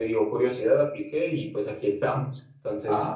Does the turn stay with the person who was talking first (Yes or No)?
No